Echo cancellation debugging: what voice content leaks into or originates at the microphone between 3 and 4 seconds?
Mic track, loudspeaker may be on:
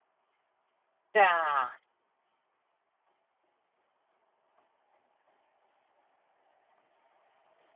neither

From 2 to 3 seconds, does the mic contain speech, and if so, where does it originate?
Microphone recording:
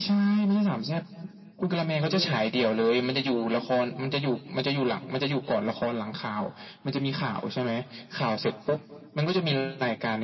both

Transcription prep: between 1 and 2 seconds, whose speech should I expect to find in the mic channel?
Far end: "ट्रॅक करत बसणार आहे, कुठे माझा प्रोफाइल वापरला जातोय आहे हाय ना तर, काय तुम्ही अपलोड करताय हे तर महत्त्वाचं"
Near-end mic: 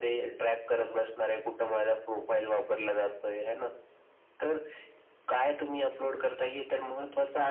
echo only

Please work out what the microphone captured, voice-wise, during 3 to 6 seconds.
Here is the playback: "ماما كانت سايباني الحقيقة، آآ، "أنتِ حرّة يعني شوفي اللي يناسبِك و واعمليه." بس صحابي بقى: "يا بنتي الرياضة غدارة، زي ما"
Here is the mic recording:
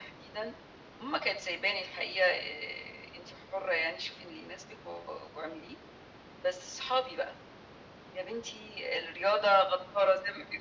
echo only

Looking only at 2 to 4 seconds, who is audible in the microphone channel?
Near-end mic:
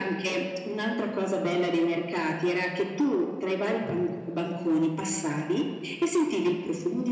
echo only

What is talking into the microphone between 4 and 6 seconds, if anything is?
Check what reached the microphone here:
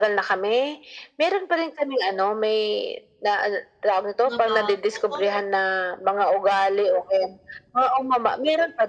both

